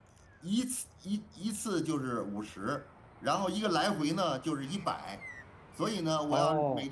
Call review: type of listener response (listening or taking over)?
listening